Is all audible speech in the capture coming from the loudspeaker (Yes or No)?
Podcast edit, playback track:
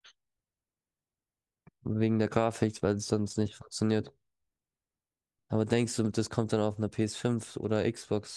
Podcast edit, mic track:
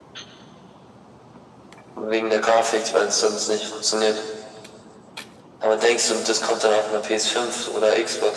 Yes